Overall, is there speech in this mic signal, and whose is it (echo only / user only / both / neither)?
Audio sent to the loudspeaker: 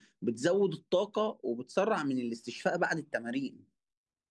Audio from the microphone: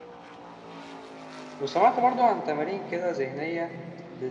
user only